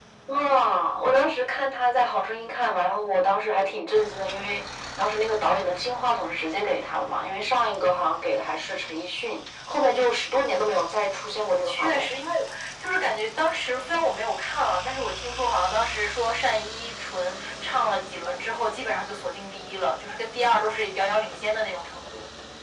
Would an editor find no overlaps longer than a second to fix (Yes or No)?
Yes